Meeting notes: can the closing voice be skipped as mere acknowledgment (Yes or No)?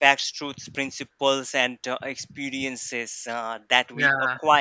Yes